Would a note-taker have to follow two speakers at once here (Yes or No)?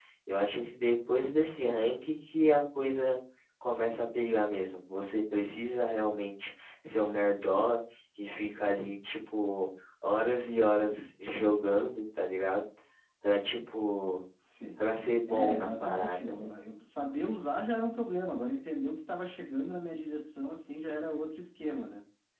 Yes